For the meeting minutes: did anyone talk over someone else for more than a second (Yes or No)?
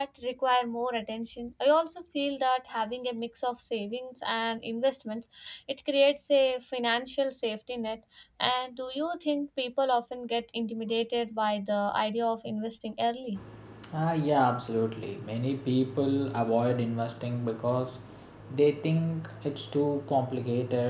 No